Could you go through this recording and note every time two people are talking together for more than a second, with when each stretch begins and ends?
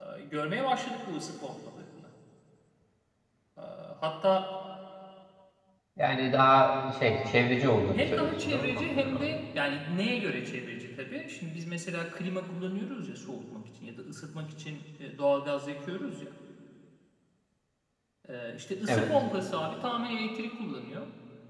7.9-9.4

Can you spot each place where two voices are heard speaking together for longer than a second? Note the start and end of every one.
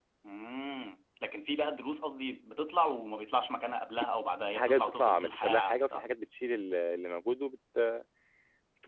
4.6-6.0

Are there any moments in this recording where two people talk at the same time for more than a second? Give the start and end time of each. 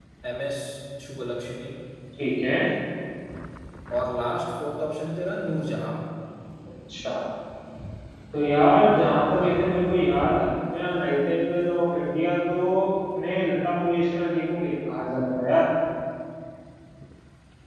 none

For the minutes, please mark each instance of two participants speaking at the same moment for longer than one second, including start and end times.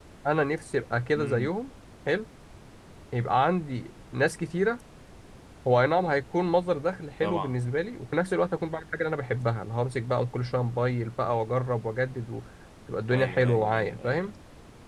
13.1-14.3

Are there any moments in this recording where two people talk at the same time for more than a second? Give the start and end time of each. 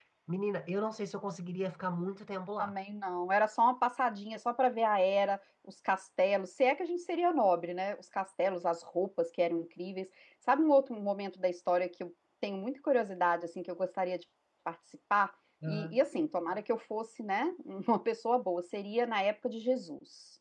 none

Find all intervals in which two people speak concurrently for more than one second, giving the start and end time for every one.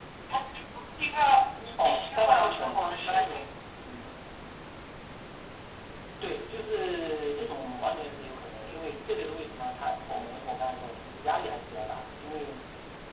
1.8-3.4

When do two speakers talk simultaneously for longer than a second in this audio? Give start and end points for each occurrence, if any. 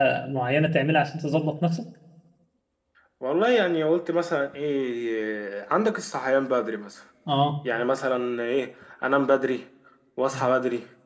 none

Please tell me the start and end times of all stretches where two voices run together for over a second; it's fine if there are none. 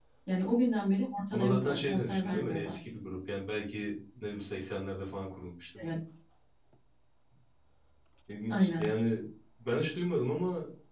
1.3-2.8

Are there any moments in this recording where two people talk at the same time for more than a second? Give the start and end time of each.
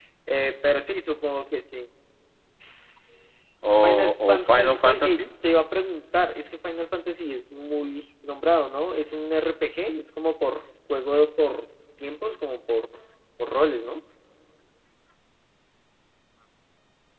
3.8-5.2

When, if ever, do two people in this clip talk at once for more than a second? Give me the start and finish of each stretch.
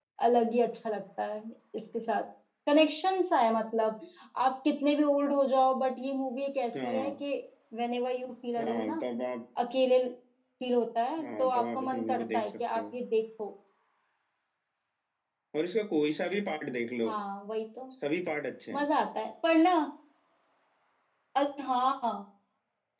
11.2-13.0

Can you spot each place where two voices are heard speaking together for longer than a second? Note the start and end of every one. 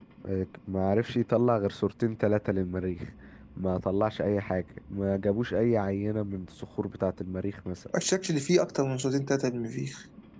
none

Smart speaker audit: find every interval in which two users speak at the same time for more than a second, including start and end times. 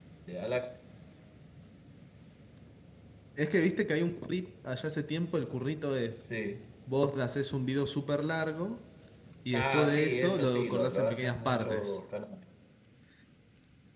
9.5-11.9

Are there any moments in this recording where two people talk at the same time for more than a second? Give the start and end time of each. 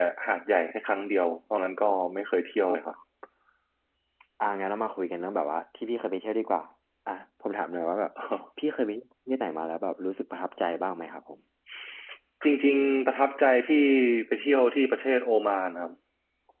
none

